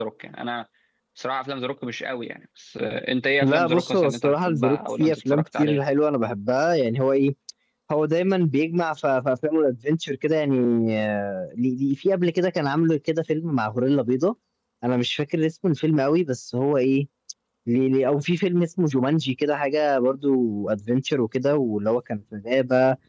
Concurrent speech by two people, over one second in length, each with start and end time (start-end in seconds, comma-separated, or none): 3.4-5.8